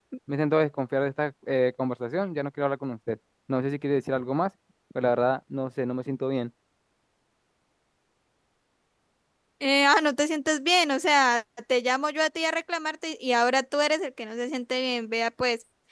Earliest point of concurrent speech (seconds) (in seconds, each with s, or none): none